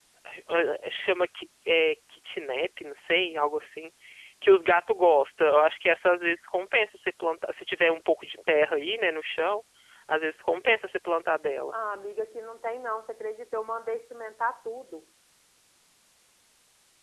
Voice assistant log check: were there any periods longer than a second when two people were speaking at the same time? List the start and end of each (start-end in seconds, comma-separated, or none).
none